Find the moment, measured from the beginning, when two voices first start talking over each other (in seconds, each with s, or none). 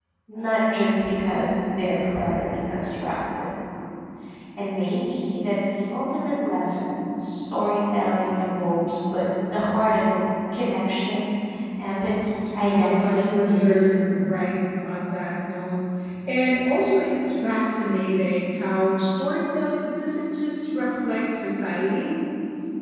12.7 s